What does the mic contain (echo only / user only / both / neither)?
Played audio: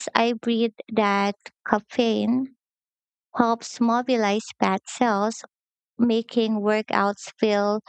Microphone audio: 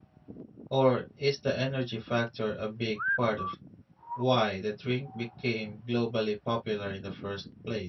user only